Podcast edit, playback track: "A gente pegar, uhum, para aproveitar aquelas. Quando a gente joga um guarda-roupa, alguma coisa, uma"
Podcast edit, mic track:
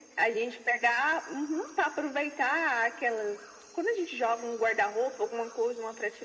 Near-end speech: none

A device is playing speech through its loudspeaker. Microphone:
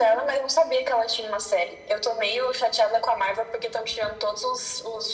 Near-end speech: none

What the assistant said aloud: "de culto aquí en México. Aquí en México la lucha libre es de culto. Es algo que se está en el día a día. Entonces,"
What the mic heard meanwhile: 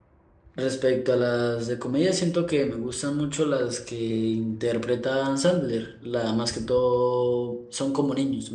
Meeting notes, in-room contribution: present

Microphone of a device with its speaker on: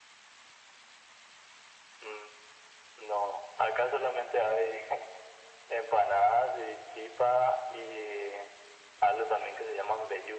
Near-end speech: none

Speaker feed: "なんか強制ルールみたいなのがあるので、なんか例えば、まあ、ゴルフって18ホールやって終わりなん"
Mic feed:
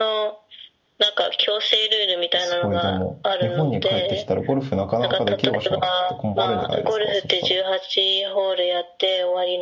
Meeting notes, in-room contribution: present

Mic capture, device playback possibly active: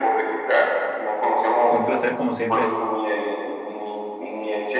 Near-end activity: present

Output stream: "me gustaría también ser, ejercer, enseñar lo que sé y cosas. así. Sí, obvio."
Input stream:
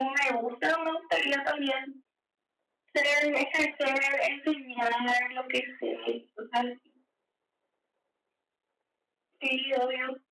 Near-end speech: none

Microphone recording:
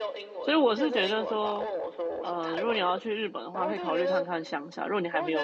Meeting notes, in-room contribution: present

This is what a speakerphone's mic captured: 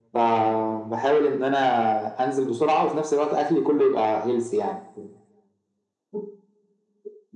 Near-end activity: none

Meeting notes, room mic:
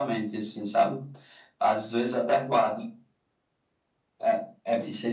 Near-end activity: none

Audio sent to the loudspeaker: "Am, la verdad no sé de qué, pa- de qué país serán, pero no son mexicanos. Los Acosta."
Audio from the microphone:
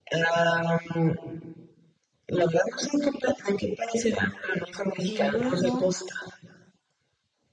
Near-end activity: present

